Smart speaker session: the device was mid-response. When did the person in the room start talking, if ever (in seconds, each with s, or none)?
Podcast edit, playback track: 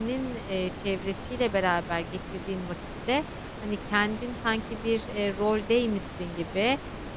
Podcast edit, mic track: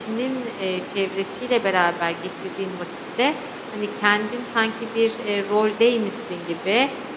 none